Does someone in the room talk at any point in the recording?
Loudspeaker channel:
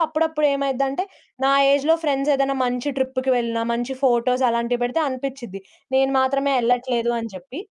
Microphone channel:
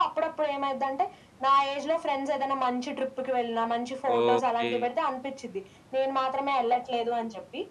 Yes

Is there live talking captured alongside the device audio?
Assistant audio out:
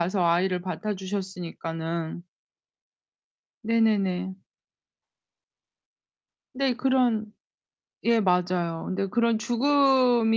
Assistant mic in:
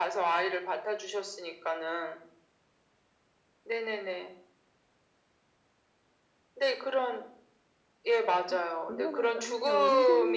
Yes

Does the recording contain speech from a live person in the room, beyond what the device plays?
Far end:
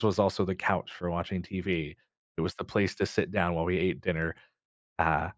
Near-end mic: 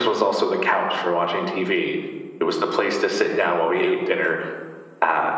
Yes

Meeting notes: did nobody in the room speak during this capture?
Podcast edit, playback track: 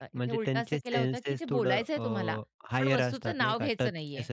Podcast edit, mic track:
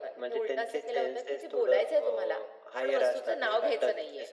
Yes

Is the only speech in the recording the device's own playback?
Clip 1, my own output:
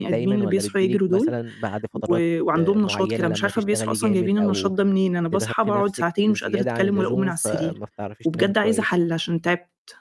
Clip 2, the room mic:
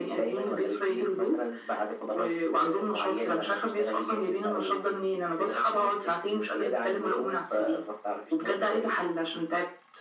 Yes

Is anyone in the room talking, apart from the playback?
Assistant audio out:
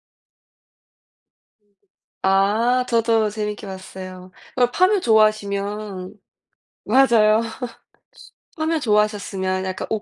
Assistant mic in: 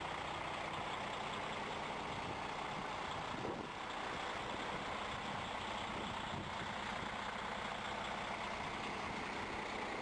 No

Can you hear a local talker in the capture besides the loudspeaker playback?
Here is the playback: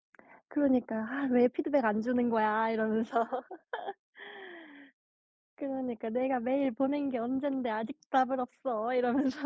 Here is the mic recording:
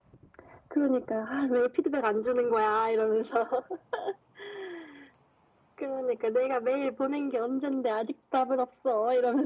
No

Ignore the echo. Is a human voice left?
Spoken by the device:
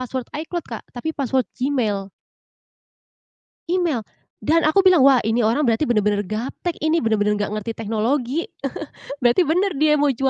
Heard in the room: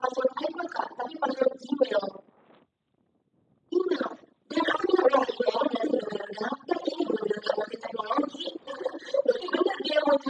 No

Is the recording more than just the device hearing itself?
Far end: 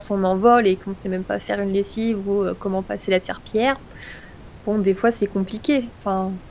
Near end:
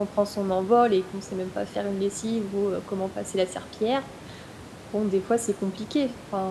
No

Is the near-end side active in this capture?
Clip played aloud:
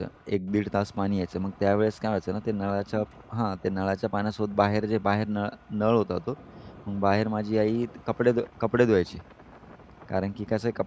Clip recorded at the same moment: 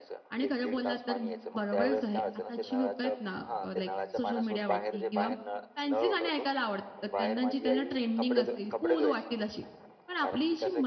Yes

